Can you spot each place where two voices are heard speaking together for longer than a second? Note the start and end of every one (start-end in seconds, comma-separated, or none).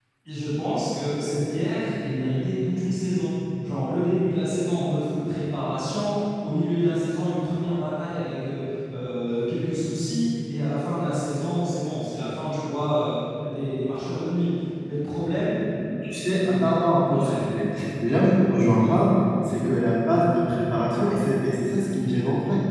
none